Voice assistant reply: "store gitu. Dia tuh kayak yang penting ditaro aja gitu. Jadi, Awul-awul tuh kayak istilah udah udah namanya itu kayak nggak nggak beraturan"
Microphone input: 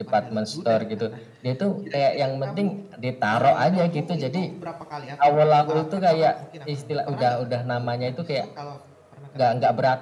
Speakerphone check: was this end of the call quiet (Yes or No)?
No